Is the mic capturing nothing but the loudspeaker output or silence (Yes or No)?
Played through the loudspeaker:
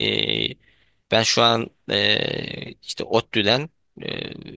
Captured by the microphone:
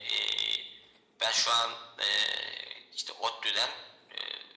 Yes